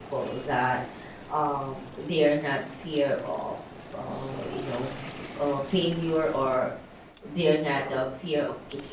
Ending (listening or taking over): listening